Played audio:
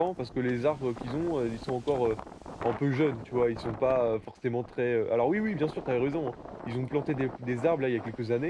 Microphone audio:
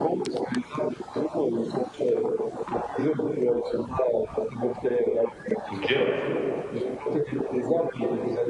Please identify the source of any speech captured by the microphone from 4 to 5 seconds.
echo only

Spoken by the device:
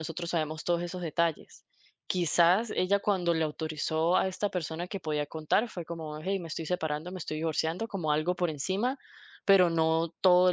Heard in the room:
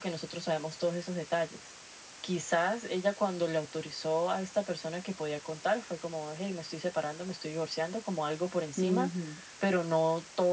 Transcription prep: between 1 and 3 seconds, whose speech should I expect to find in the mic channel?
echo only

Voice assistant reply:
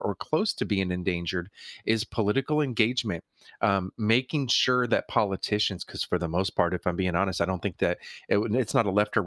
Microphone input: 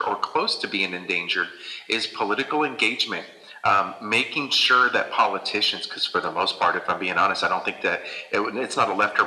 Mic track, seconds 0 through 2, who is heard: echo only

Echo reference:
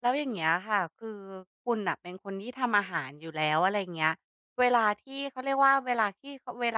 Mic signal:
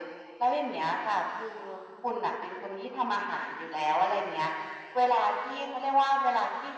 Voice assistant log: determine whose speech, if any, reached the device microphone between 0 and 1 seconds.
echo only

